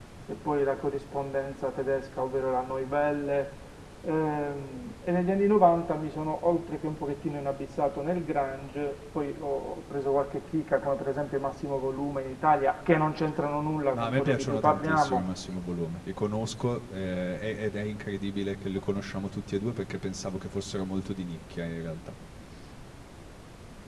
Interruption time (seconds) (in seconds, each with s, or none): 13.9 s